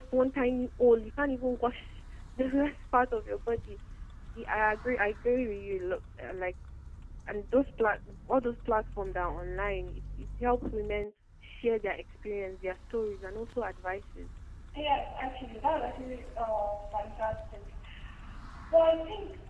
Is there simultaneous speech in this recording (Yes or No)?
No